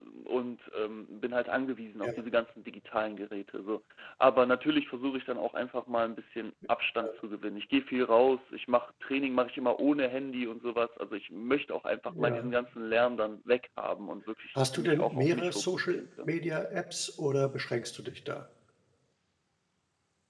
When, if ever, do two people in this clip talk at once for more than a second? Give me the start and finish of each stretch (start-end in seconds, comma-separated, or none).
14.6-16.3